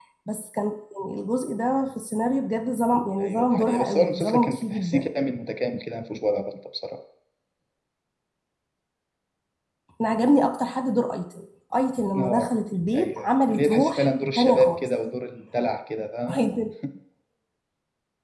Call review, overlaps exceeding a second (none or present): present